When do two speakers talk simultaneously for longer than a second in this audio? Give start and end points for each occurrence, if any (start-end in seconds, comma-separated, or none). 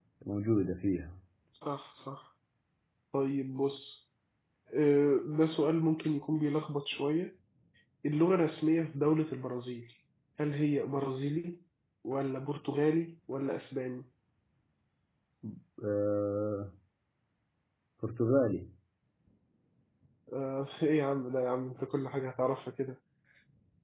none